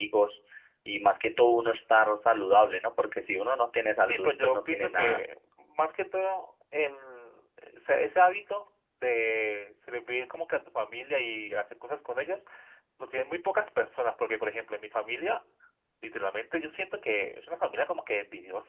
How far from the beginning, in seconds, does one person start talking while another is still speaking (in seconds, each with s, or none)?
4.0 s